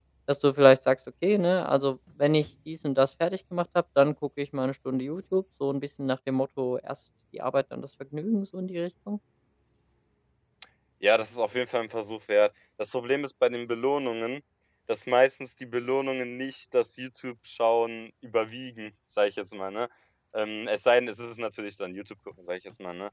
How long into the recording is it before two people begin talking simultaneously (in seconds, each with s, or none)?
none